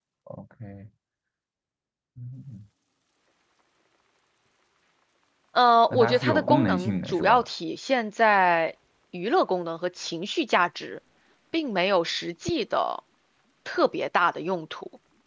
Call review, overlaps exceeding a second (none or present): present